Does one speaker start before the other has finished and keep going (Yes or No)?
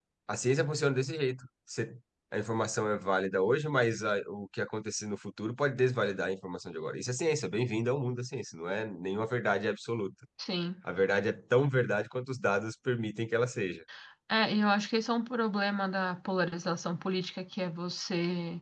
No